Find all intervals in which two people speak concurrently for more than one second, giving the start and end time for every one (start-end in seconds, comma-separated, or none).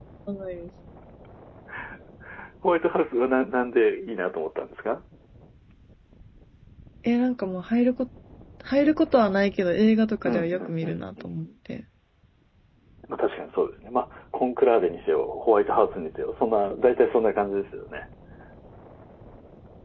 10.2-11.5